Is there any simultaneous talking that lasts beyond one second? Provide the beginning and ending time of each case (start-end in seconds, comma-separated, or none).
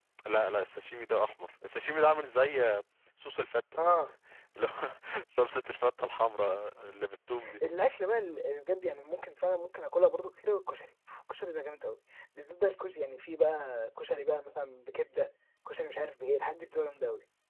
none